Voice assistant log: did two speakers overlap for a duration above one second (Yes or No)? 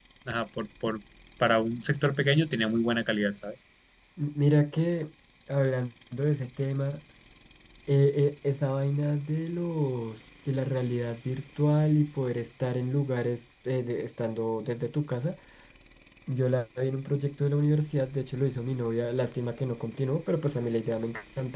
No